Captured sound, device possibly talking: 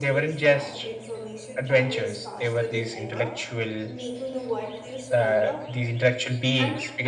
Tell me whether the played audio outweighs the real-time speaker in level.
Yes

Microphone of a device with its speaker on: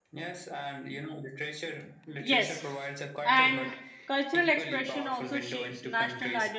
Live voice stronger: Yes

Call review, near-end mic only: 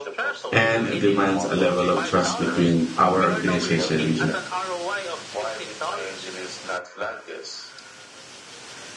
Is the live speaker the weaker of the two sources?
No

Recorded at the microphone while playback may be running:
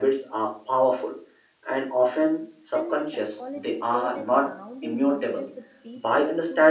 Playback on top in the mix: Yes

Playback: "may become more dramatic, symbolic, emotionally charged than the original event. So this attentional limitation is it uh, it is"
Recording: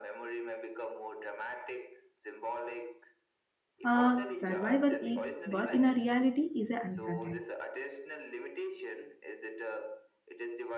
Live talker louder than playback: Yes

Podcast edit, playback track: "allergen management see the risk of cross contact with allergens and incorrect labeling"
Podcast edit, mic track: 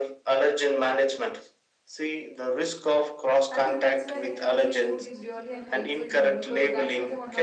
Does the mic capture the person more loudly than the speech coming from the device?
No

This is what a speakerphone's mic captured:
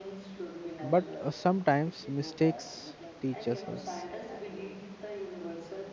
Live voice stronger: Yes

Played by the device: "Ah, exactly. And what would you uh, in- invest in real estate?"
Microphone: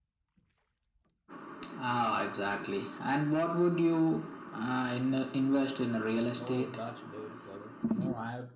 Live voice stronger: No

